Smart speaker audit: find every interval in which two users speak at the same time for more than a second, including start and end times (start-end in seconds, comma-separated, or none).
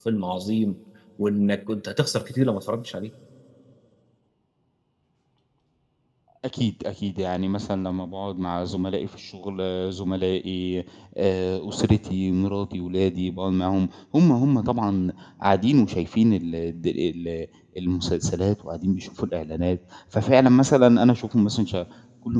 none